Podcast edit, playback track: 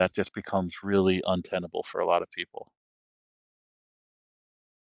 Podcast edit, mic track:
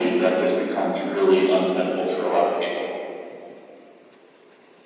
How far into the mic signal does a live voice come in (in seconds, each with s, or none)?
none